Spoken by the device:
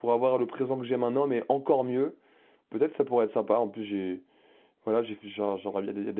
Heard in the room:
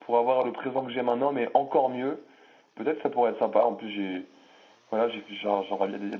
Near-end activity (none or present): none